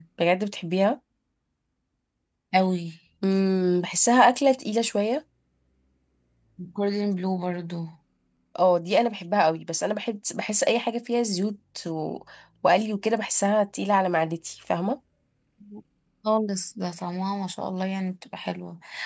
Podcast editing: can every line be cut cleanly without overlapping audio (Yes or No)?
Yes